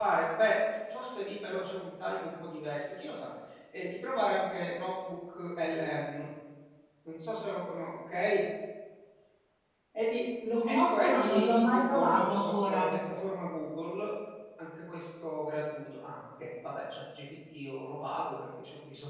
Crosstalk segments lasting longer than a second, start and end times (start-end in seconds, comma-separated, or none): 10.6-12.9